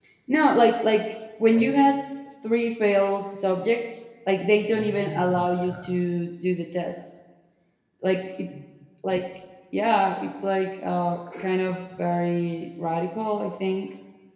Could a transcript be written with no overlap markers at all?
No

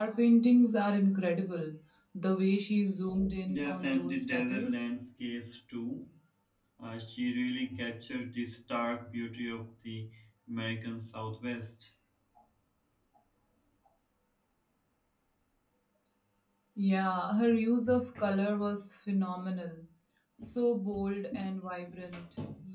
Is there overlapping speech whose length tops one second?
Yes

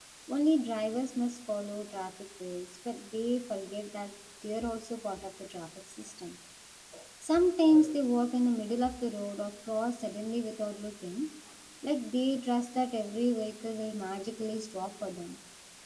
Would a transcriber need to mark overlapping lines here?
No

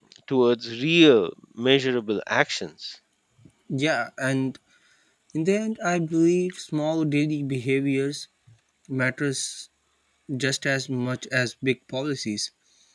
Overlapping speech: No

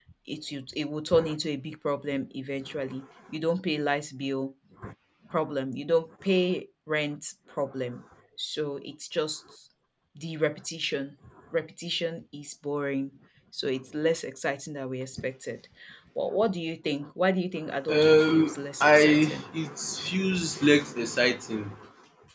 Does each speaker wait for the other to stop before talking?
No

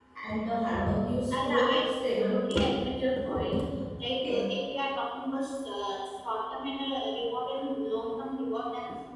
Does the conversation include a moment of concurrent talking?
Yes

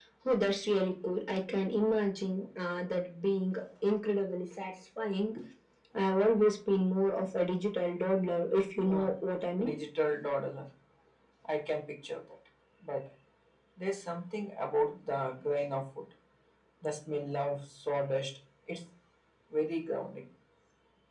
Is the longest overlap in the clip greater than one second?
No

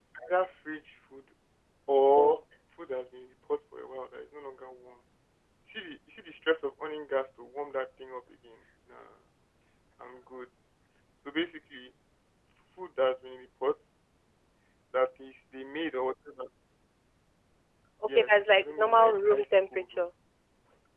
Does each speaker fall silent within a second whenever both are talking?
No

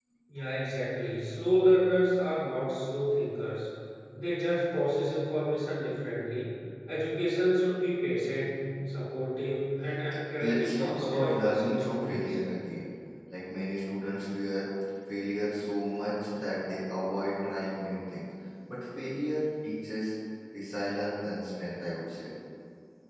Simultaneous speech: Yes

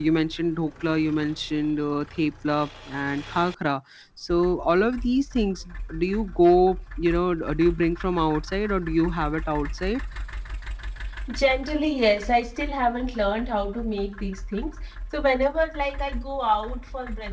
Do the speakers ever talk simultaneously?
No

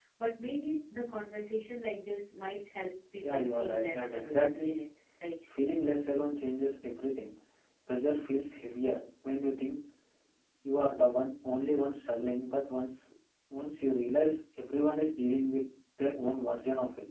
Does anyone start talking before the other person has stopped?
Yes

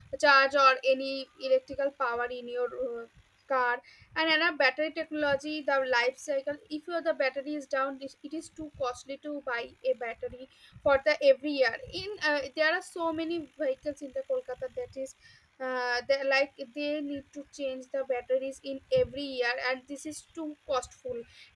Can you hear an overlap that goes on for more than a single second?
No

